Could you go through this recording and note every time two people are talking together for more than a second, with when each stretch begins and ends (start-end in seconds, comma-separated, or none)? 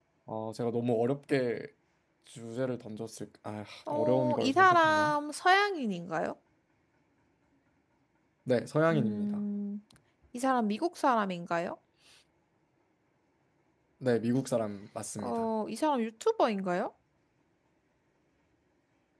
3.9-5.1